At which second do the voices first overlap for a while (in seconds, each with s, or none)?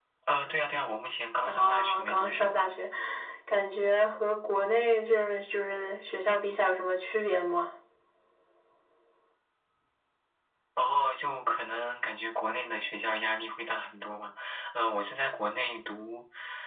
1.4 s